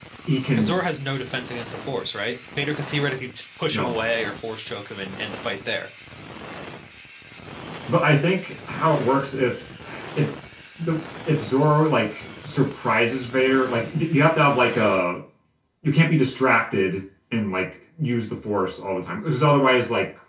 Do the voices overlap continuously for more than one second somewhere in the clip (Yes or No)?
No